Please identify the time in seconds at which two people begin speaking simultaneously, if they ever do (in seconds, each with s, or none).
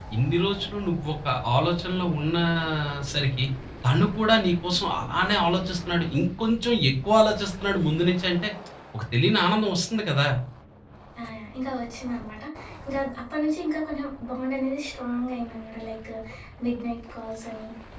none